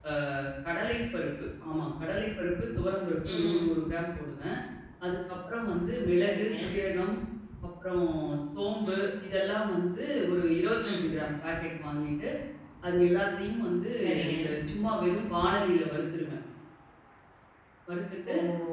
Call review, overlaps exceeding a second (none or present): none